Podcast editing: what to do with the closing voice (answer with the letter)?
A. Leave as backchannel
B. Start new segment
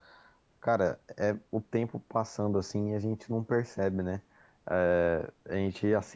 A